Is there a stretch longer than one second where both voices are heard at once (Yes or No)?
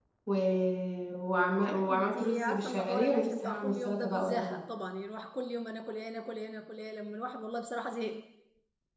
Yes